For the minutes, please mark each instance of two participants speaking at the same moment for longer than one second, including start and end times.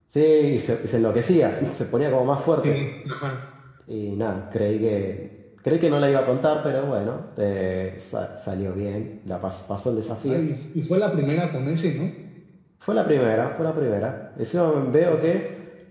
none

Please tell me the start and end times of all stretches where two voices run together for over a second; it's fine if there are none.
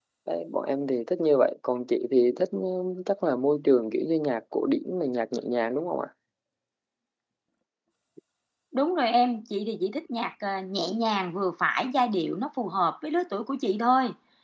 none

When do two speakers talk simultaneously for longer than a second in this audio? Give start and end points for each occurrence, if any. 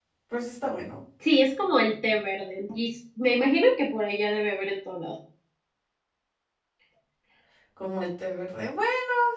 none

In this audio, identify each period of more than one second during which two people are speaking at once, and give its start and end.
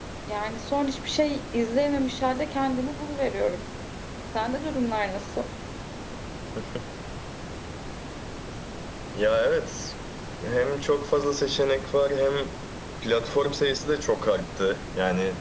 none

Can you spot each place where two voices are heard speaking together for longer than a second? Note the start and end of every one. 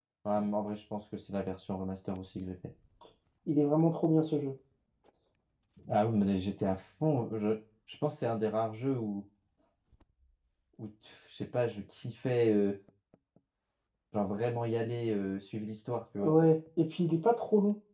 none

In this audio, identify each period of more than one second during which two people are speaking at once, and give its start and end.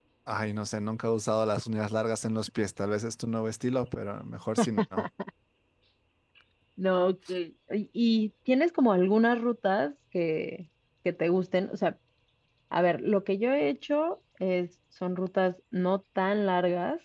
none

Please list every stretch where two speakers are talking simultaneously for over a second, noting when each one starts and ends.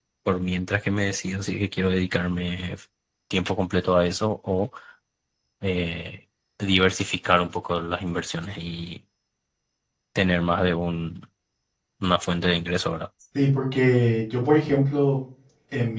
none

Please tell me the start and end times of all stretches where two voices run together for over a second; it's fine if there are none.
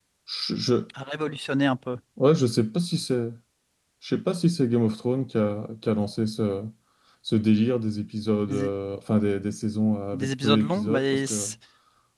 10.1-11.5

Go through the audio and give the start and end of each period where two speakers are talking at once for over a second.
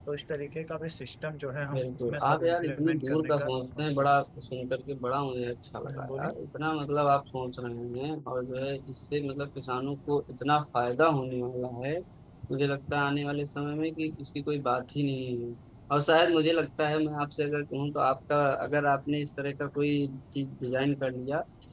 1.7-4.1

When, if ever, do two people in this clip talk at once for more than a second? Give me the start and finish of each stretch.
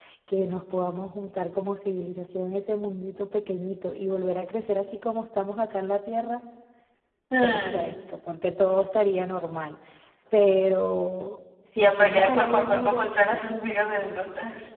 11.8-13.1

